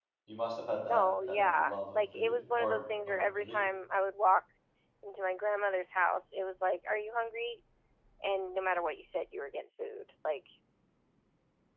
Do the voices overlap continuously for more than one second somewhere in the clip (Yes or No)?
Yes